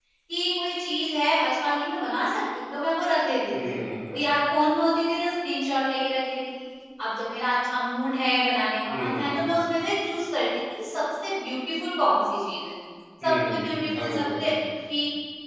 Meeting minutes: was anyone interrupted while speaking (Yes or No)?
Yes